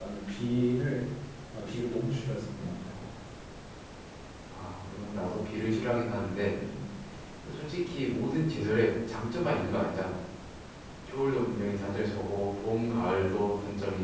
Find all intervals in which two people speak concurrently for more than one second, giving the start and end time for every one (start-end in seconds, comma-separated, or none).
none